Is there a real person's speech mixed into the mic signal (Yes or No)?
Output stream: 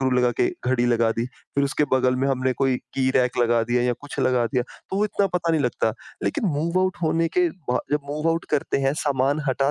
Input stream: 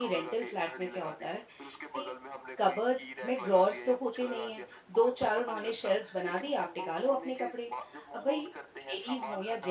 Yes